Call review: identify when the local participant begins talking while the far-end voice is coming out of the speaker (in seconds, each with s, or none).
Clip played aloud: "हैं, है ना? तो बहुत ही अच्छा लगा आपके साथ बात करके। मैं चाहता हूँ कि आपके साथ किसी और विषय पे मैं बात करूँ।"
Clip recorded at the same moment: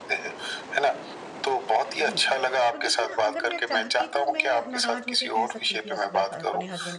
2.0 s